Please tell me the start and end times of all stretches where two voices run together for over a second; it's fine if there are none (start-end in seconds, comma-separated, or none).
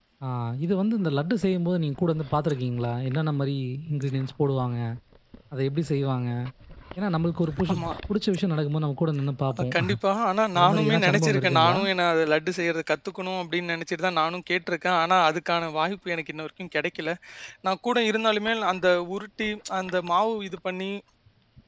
10.6-11.8